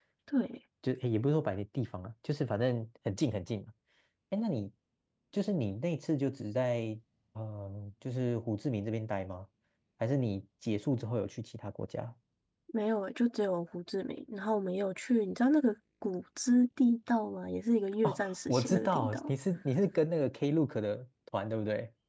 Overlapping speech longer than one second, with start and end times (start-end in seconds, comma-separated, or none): 18.0-19.3